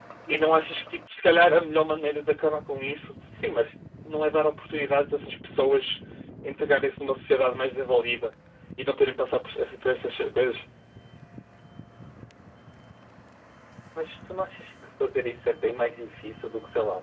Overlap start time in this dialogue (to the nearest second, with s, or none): none